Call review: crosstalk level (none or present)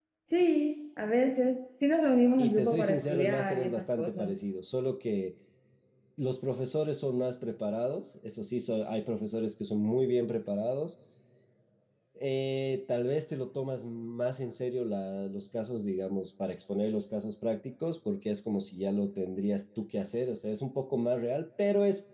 present